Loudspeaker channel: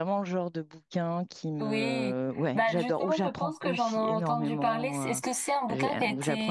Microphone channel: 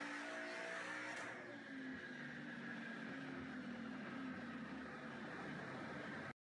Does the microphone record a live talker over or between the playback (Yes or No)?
No